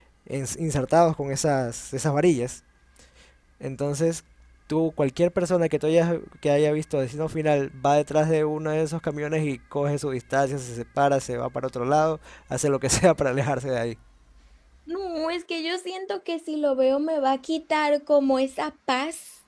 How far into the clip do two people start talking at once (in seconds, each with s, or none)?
none